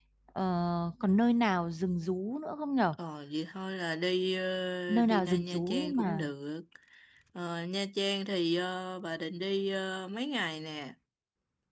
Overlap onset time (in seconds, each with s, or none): 4.9 s